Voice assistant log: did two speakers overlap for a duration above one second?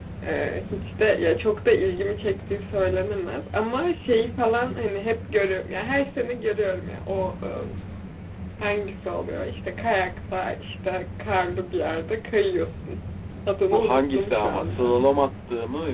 Yes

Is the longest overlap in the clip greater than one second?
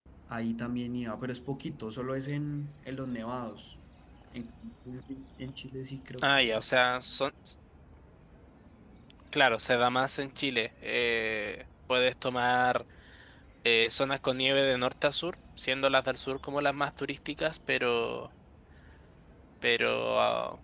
No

